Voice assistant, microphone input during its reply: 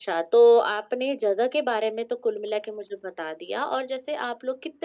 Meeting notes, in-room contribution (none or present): none